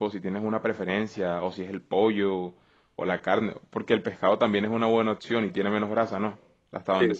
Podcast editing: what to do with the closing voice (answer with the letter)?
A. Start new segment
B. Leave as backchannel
A